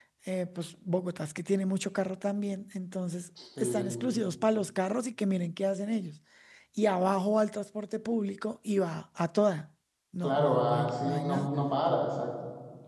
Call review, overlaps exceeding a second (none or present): present